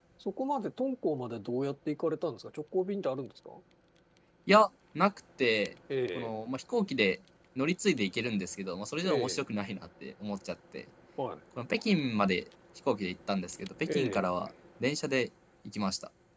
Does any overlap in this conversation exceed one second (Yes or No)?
No